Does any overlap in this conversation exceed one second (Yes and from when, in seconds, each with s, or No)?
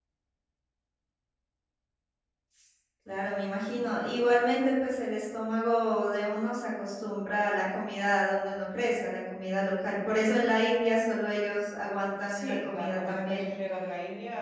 Yes, from 12.3 s